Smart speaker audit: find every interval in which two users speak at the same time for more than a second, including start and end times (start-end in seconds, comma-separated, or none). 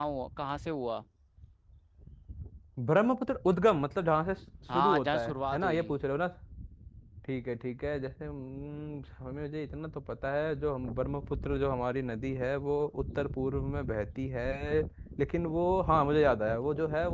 4.7-6.0